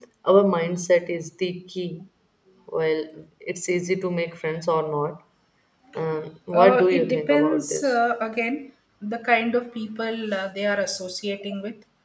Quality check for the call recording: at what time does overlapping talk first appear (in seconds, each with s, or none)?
6.5 s